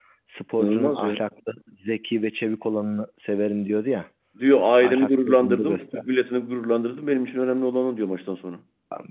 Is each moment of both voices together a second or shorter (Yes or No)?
No